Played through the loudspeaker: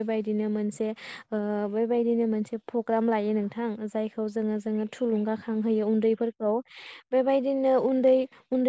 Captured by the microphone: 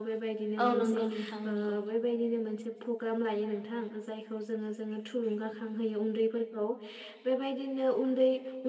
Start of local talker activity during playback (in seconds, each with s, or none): 0.7 s